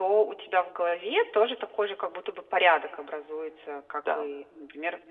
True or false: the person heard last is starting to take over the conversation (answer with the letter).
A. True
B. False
B